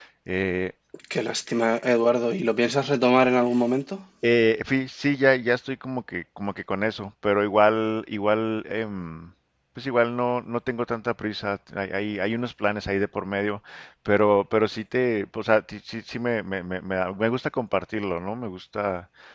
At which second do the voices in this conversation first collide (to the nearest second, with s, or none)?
none